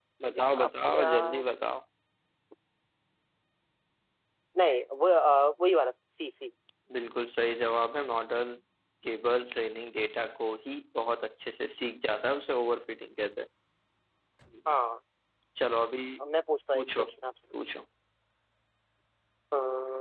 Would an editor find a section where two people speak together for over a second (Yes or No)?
Yes